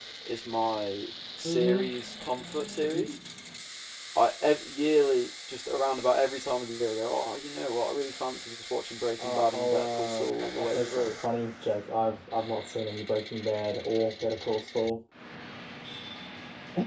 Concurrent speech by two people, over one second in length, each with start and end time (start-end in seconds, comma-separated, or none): 9.2-11.1